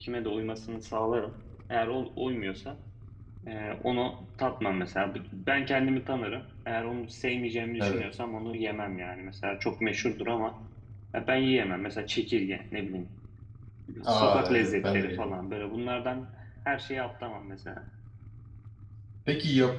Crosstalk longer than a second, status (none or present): present